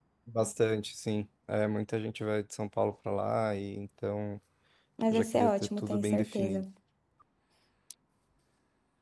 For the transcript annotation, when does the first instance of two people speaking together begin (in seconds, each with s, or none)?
5.1 s